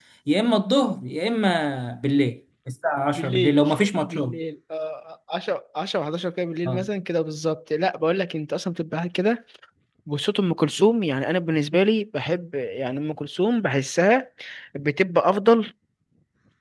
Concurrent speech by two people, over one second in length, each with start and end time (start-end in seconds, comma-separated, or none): none